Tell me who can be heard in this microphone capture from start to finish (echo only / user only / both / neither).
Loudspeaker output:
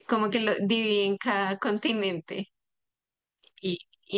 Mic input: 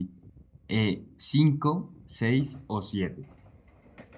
user only